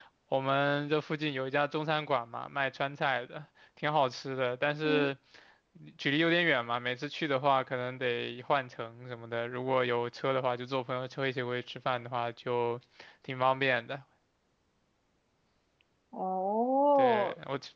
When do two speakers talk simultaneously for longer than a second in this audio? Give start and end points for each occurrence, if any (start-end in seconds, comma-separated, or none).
none